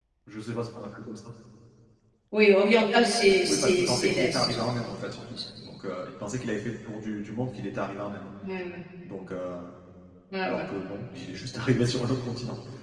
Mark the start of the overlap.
3.5 s

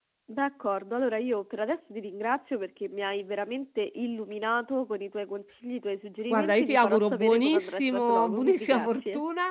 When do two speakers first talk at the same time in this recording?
6.3 s

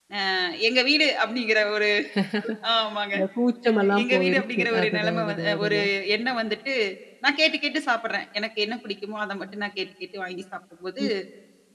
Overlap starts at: 3.7 s

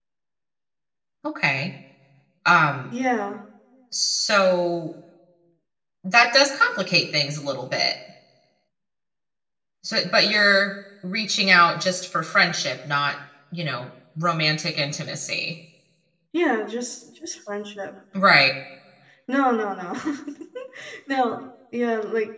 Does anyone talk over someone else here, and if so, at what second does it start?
none

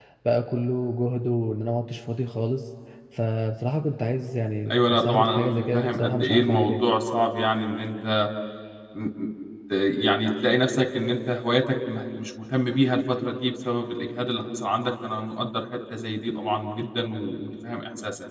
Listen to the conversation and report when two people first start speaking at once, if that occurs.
4.7 s

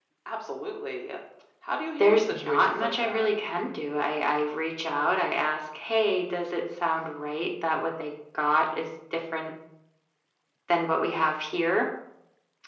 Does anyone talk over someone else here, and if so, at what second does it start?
2.0 s

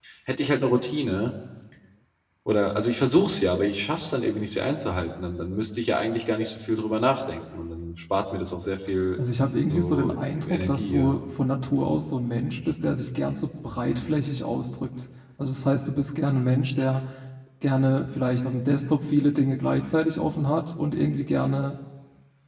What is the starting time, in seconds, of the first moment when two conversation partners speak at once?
9.7 s

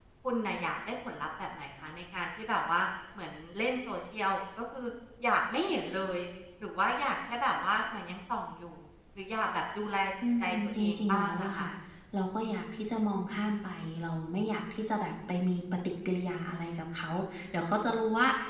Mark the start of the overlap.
10.2 s

